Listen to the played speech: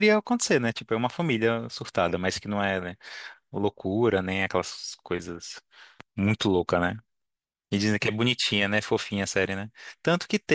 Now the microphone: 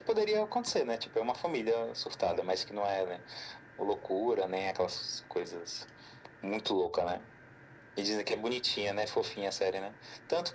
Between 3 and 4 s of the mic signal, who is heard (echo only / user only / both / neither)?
echo only